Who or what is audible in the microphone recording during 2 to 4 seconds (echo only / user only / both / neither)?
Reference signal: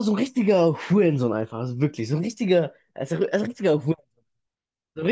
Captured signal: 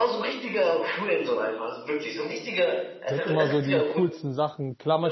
both